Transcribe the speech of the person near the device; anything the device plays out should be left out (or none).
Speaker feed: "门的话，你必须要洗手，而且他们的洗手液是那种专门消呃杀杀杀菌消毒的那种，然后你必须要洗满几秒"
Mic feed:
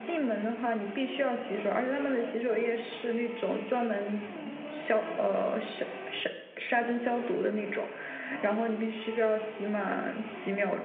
none